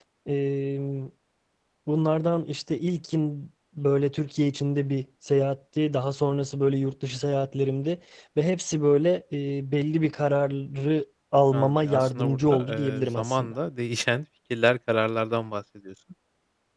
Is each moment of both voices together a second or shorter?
No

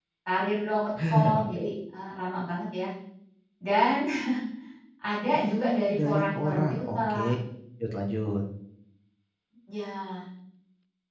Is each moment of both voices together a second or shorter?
No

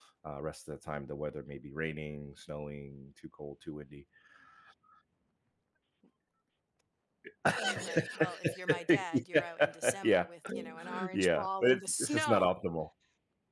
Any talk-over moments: Yes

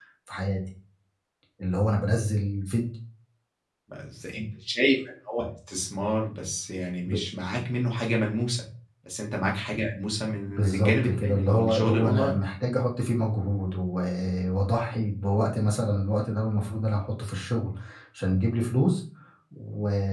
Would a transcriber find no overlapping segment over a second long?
No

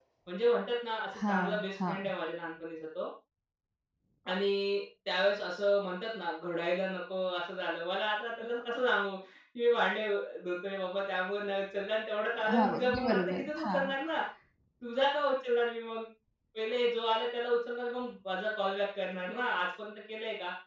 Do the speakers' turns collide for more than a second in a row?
Yes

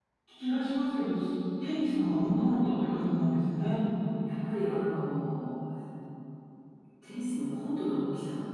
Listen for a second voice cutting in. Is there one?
No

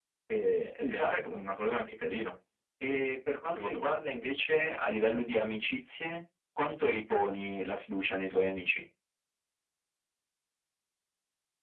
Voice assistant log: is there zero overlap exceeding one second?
Yes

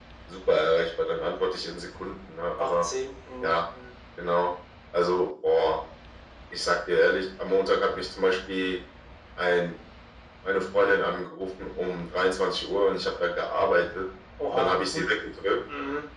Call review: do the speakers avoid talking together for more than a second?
Yes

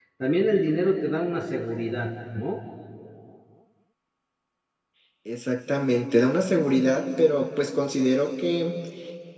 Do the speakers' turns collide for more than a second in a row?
No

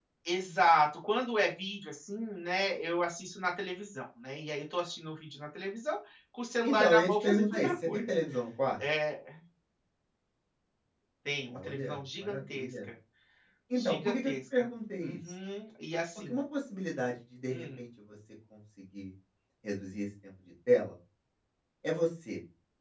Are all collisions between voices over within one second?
No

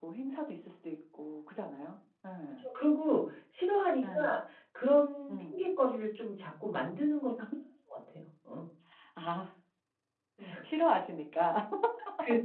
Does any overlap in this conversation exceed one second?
No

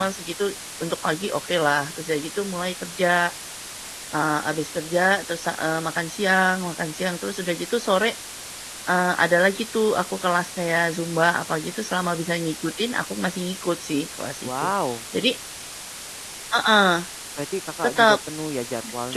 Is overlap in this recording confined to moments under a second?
Yes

